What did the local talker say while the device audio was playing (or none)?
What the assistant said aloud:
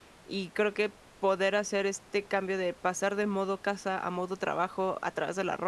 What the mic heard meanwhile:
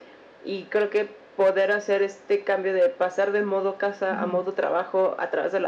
Ujú.